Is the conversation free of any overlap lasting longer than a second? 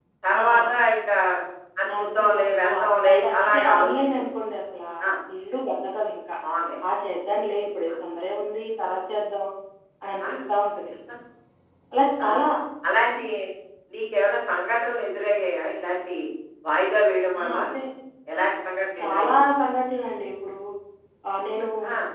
No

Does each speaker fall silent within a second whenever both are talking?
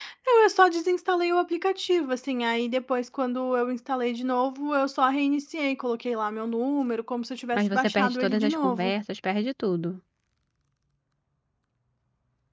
No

